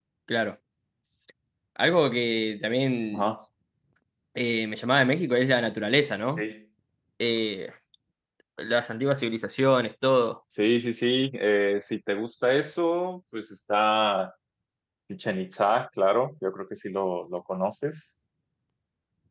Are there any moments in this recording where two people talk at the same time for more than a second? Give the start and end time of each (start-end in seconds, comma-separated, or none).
none